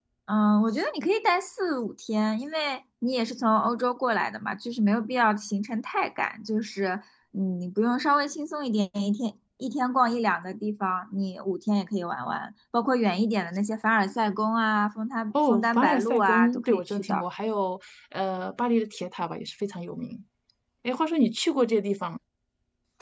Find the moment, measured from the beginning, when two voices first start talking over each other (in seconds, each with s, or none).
15.3 s